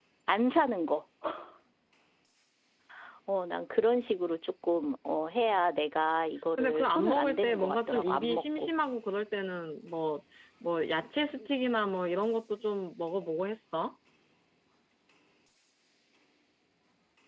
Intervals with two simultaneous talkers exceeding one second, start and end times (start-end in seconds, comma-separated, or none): 6.6-8.7